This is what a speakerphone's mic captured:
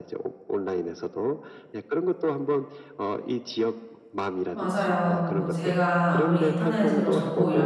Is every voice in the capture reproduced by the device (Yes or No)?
No